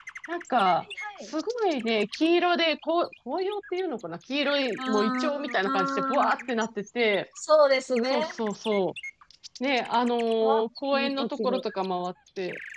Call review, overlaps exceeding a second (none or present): present